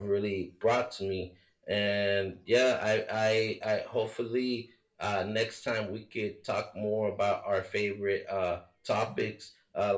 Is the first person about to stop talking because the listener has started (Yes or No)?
No